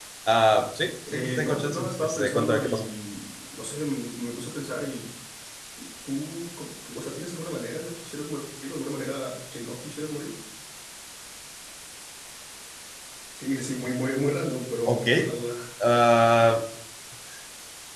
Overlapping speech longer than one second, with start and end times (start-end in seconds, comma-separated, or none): 1.1-2.9